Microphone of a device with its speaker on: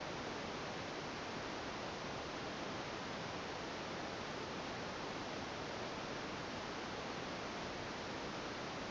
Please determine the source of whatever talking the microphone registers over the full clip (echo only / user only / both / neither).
neither